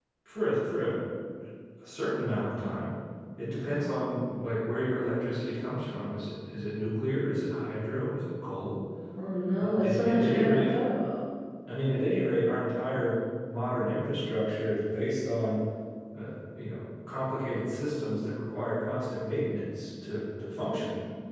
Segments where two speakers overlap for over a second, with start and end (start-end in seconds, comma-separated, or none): 9.6-10.8